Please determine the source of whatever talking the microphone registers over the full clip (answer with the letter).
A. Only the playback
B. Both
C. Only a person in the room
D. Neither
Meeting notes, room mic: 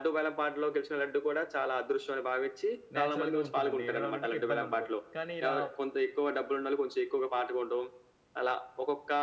B